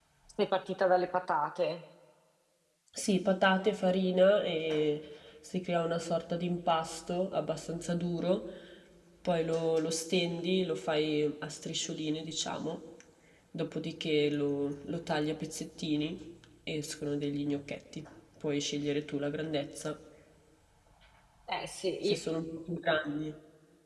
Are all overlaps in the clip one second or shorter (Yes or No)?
Yes